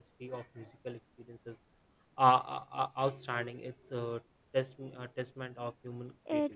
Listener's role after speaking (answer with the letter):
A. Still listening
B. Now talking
B